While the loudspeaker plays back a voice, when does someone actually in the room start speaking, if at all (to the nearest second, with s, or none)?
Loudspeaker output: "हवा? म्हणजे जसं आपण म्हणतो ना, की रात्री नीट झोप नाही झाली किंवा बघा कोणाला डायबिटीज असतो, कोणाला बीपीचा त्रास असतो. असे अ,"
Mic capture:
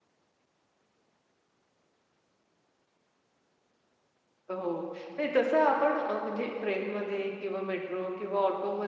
5 s